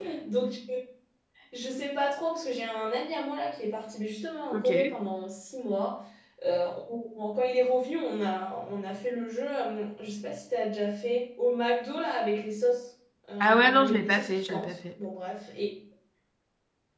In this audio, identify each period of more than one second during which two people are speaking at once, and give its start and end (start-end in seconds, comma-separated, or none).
13.4-14.7